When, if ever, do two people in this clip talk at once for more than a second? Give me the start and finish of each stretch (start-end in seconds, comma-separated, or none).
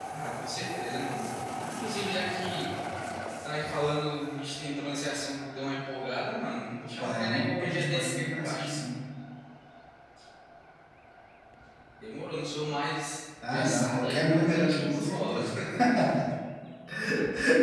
7.0-8.7, 13.4-15.4